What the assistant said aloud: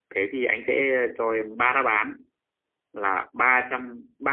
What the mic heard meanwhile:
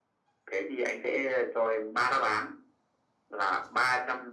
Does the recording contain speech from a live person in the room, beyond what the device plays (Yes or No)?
No